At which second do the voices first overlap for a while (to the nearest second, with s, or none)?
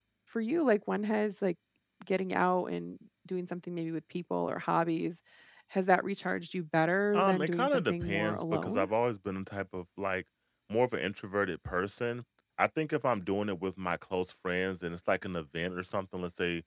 7 s